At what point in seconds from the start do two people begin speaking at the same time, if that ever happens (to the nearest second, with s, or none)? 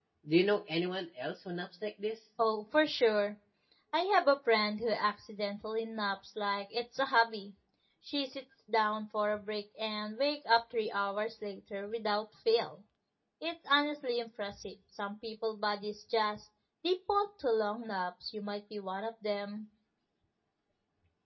none